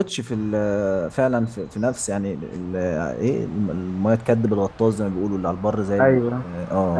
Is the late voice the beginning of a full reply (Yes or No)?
Yes